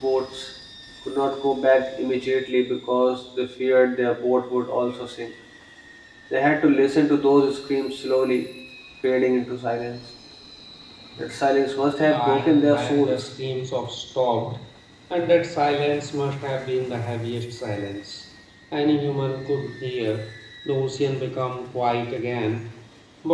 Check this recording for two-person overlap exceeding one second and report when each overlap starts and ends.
12.0-13.3

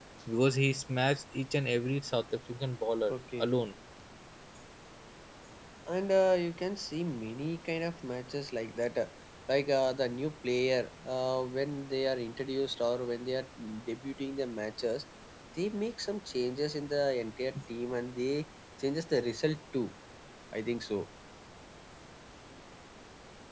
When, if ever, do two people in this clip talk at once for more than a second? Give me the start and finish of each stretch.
none

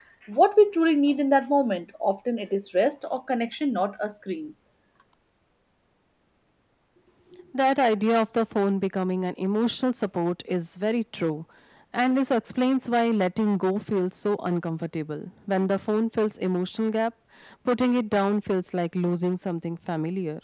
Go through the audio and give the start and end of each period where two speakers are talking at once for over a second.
none

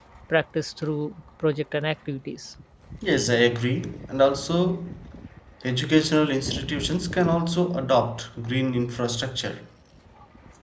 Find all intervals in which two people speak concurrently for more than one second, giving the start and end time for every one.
none

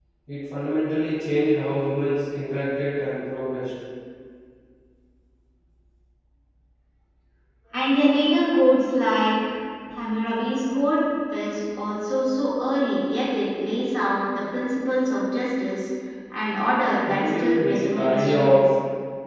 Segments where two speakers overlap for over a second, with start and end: 17.0-18.6

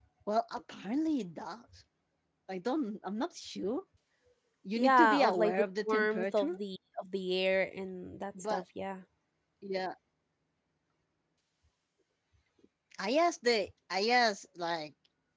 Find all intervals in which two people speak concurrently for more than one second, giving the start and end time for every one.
4.8-6.6

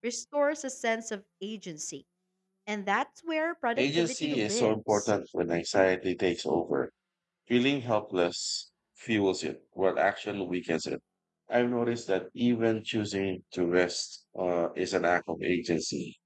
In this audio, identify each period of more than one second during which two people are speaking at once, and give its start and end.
3.8-5.1

